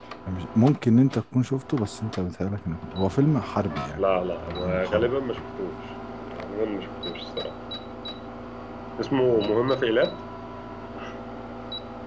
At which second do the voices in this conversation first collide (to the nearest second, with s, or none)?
4 s